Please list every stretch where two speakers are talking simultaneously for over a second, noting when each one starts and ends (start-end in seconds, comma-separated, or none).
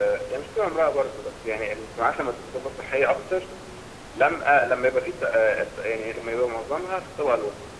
none